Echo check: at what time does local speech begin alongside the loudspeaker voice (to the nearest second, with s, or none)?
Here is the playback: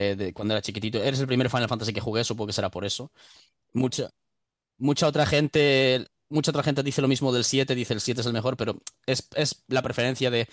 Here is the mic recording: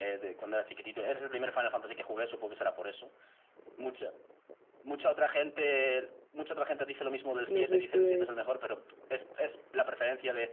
7 s